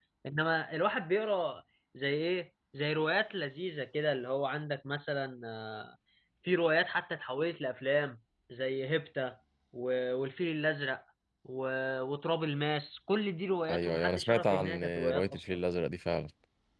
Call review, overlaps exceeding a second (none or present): present